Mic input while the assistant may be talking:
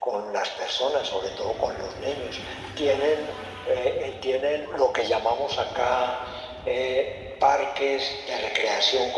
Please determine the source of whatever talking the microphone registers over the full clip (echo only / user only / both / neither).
echo only